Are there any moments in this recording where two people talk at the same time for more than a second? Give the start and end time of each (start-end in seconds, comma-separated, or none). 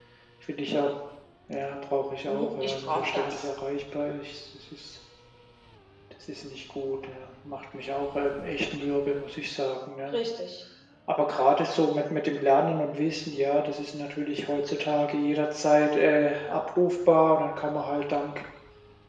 2.3-3.5